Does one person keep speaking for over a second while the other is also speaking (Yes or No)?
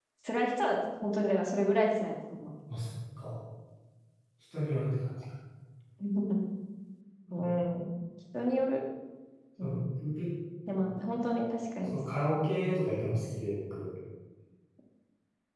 No